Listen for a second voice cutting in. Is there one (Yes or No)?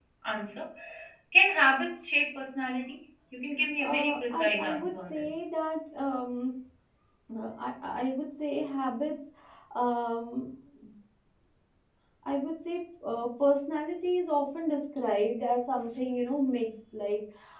Yes